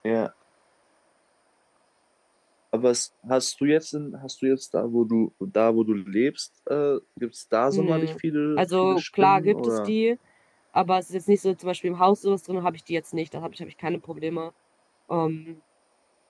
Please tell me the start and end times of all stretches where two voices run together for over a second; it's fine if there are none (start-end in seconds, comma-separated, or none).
8.6-9.9